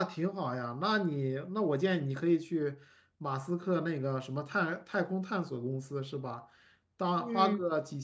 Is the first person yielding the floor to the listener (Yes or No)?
No